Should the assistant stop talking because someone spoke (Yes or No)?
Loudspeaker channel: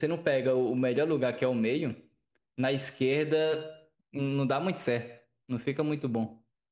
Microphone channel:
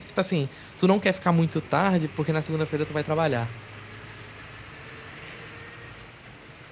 Yes